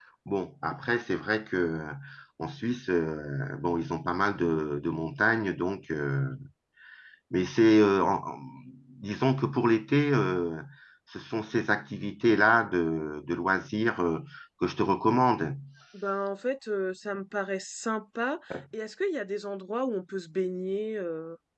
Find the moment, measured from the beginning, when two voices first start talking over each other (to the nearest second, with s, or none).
none